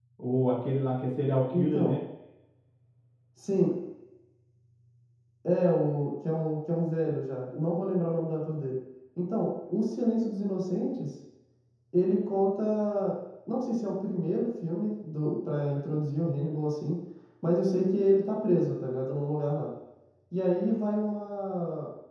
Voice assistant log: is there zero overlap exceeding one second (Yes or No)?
Yes